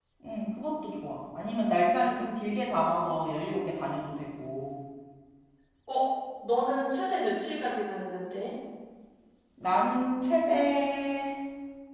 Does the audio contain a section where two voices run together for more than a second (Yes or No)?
No